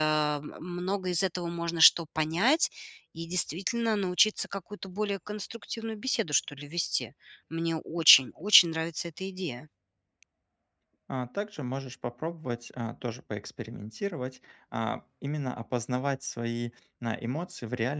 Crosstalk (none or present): none